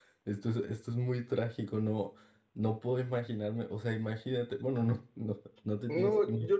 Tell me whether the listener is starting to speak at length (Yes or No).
Yes